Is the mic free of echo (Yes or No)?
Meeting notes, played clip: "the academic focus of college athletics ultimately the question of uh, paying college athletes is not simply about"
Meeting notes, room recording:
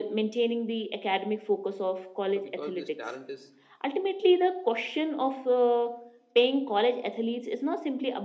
No